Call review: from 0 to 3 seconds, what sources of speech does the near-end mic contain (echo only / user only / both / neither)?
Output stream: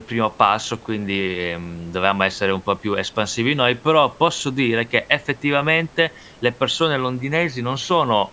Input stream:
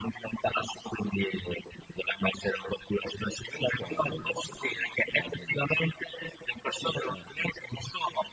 echo only